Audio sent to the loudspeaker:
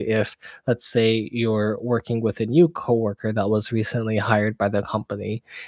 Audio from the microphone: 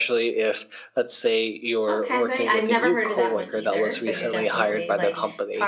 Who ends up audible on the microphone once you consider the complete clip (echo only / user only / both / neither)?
both